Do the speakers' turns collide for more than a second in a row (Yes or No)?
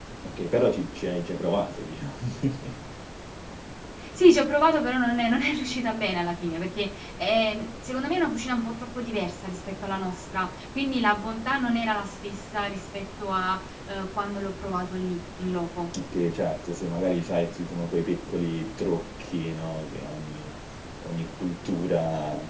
No